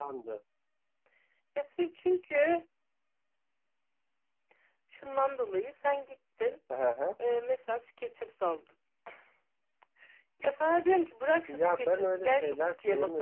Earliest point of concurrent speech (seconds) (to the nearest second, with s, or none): 11 s